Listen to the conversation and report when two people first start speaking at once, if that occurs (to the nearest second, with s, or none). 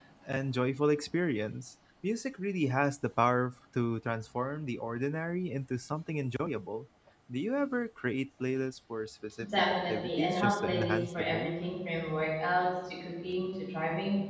9 s